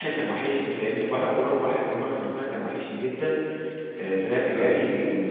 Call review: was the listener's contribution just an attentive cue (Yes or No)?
Yes